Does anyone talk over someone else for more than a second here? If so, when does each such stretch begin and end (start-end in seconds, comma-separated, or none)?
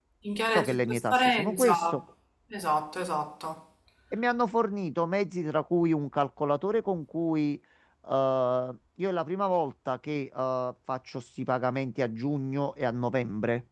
0.5-2.0